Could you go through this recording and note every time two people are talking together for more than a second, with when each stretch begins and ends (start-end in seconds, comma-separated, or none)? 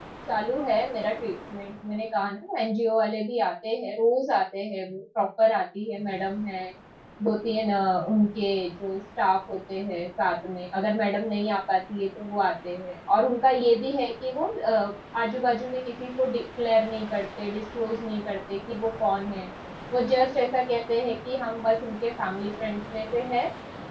none